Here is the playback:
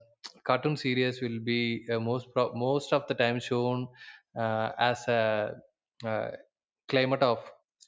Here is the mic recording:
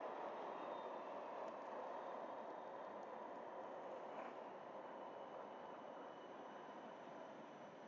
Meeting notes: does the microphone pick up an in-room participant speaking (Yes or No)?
No